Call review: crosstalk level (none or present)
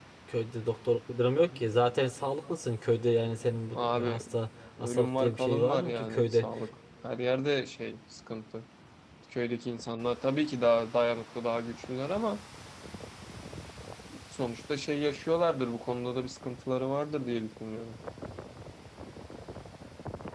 present